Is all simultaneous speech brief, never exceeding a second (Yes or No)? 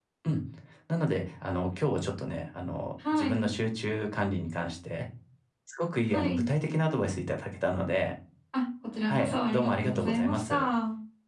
No